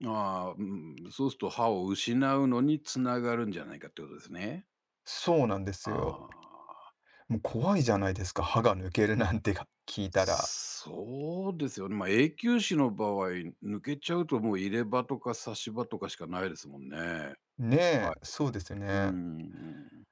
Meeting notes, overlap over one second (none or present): none